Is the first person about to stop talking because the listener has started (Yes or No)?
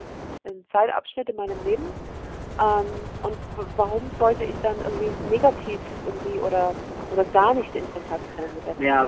Yes